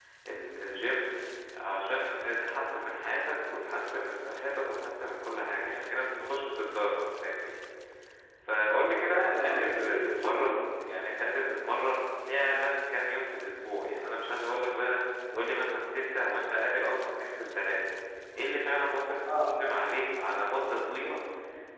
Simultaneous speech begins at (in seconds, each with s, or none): 9.0 s